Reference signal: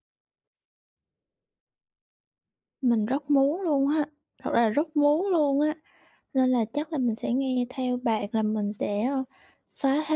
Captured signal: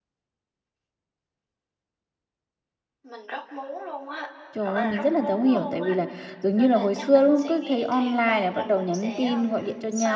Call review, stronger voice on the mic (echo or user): user